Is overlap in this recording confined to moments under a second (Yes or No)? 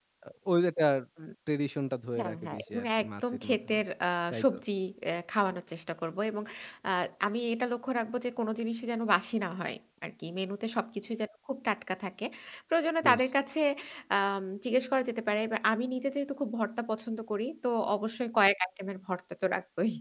No